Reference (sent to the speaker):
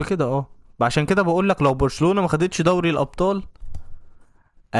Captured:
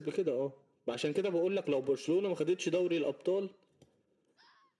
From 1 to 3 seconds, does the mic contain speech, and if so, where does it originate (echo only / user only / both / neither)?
echo only